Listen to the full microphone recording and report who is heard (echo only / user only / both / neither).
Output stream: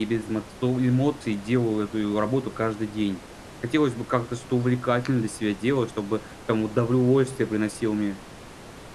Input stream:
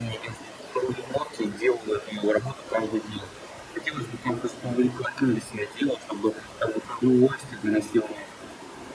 echo only